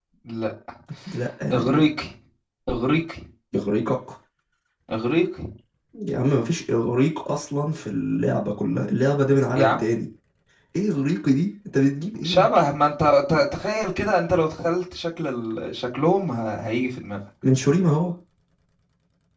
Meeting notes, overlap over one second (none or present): none